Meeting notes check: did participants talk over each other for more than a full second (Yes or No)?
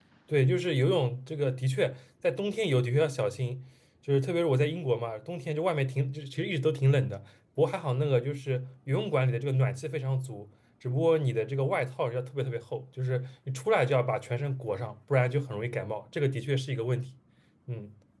No